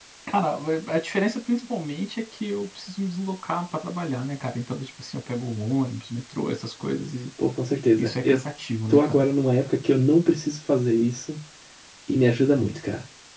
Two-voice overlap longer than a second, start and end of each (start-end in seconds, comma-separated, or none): none